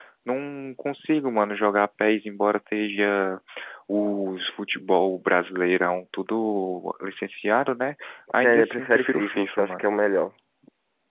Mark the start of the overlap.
8.4 s

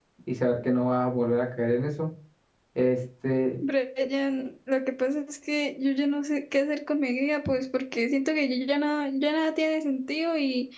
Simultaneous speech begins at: none

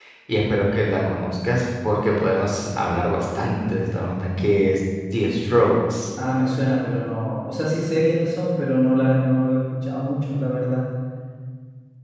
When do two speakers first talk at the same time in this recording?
none

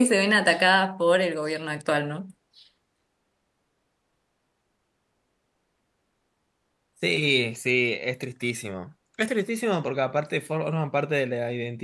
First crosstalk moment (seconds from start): none

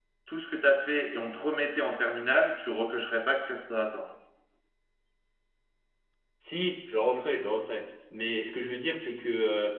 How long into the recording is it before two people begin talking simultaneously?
none

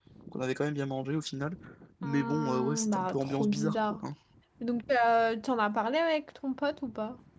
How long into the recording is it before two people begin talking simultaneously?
2.0 s

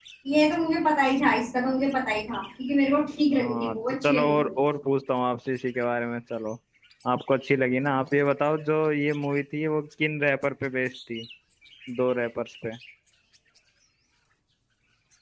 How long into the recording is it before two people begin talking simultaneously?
3.3 s

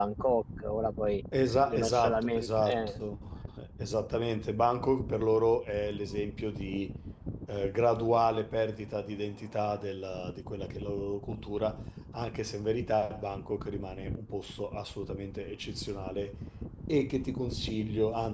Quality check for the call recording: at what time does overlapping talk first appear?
1.7 s

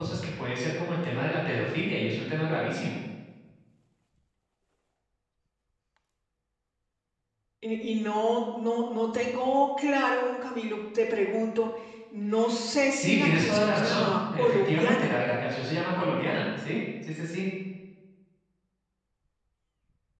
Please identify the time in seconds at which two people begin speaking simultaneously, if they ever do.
12.9 s

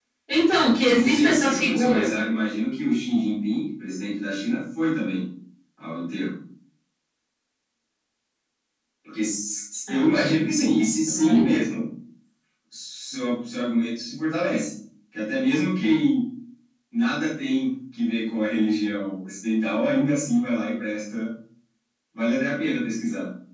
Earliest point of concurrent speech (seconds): 0.8 s

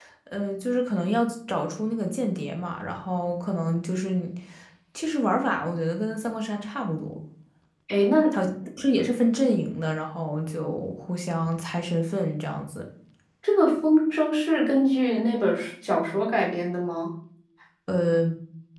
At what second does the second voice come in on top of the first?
none

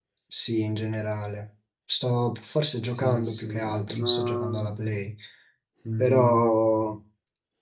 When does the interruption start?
2.8 s

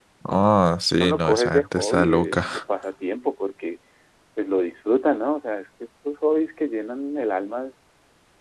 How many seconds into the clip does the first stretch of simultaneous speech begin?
1.0 s

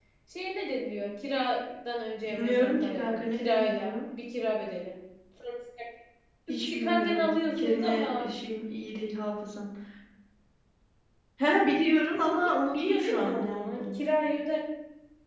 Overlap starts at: 2.2 s

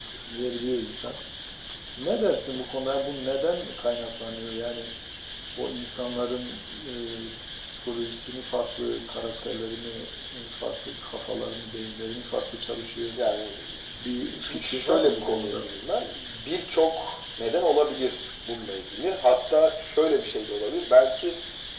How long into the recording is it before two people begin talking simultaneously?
14.4 s

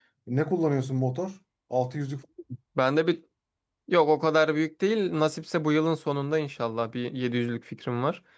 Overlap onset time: none

